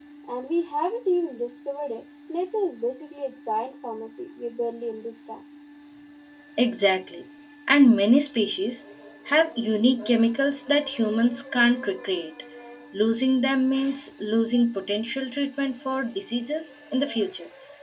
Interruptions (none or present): none